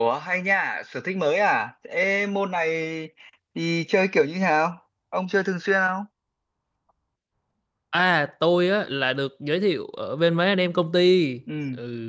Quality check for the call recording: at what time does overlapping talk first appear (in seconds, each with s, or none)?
none